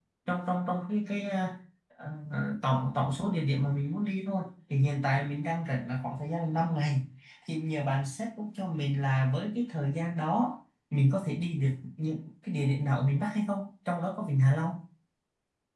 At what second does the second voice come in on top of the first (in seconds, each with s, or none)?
none